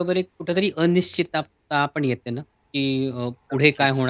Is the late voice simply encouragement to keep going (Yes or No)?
Yes